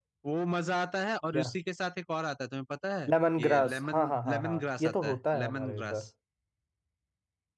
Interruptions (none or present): present